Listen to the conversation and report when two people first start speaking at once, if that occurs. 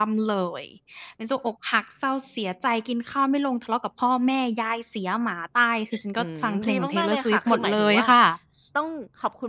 5.9 s

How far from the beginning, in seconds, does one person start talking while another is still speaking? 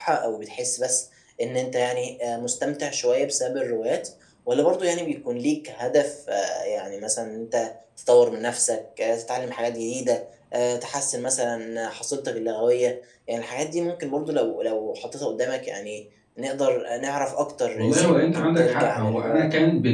17.8 s

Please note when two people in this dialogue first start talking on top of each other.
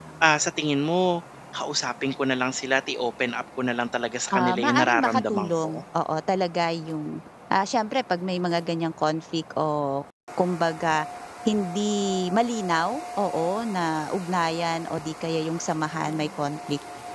4.3 s

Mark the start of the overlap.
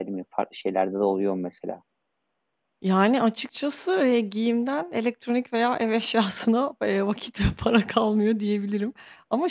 none

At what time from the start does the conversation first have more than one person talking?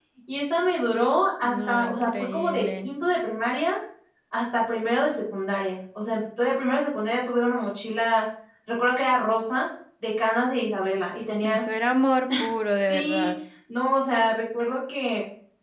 1.4 s

